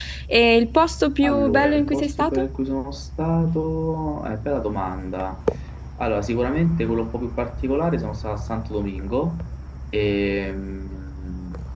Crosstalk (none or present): present